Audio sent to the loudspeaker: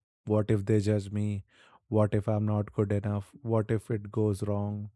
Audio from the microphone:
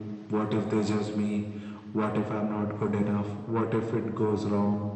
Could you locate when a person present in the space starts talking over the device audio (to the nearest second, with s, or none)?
none